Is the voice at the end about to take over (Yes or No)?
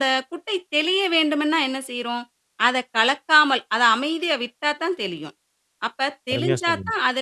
No